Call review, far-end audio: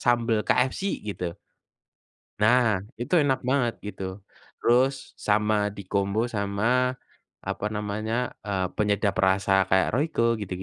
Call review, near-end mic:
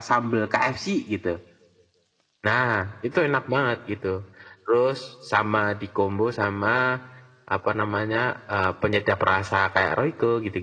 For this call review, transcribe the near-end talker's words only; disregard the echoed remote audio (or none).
none